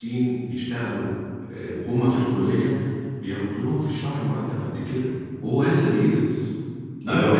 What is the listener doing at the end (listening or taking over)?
taking over